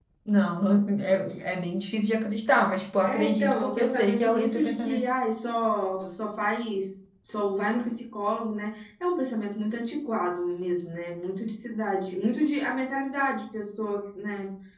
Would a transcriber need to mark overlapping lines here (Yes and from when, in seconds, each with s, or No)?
Yes, from 3.0 s